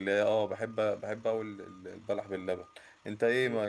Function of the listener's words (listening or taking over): listening